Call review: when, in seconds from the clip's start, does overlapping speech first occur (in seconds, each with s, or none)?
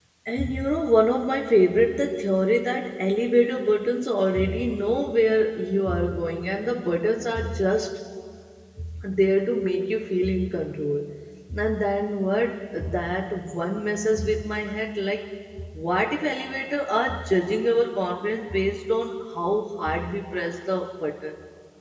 none